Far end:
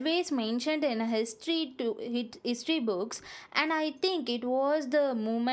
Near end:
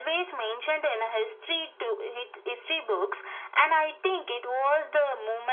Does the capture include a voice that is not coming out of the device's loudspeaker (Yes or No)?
No